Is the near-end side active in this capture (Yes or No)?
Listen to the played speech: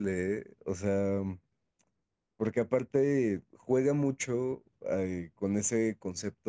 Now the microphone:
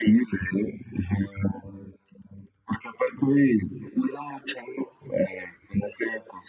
No